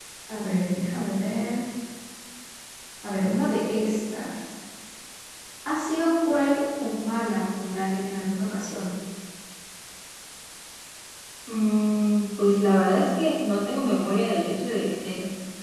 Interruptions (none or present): none